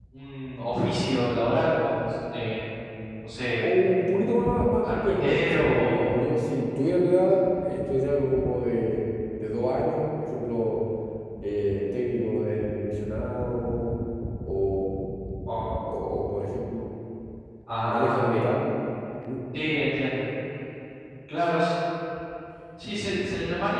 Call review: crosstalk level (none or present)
present